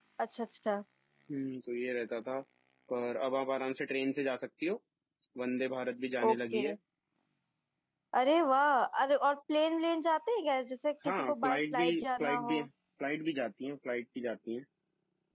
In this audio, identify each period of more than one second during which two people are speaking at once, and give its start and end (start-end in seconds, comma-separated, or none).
11.1-12.6